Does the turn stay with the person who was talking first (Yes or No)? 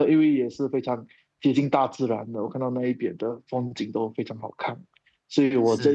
Yes